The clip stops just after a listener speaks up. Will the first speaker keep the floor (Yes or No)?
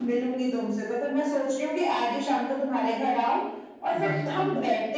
Yes